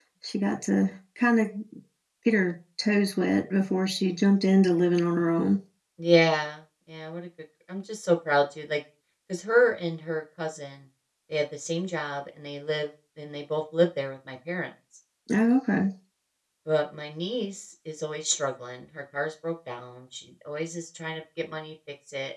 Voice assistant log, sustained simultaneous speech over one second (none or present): none